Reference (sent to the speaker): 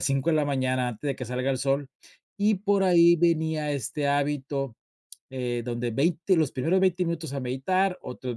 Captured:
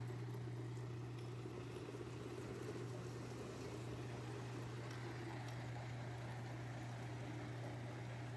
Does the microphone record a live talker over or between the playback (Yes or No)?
No